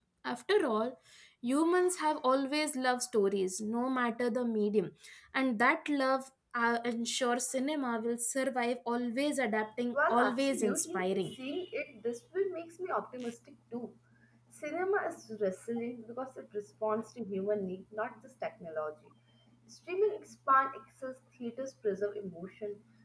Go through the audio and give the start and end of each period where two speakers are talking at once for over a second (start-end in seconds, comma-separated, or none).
9.9-11.4